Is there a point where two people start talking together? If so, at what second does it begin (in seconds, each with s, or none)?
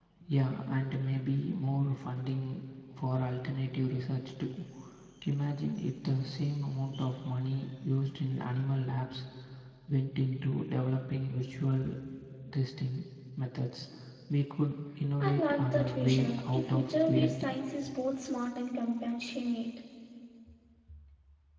15.2 s